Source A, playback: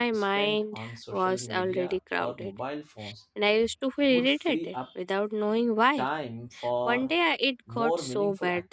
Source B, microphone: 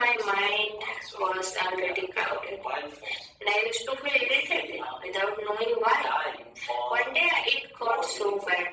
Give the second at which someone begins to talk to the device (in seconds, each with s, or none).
none